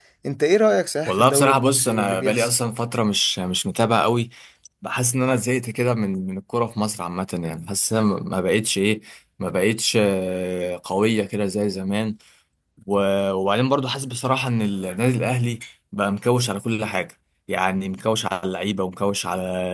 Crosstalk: present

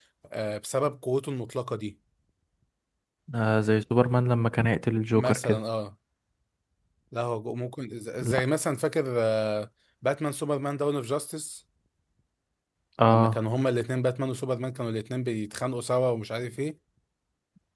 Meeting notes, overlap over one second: none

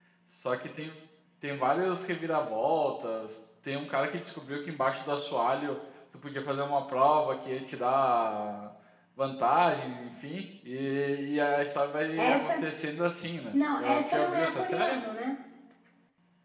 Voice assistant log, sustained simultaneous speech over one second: present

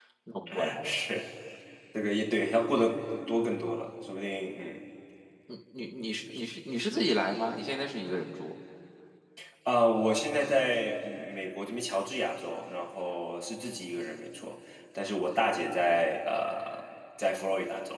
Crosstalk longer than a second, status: none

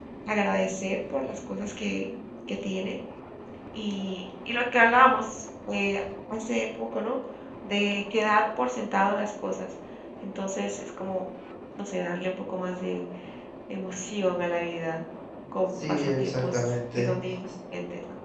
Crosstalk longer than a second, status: present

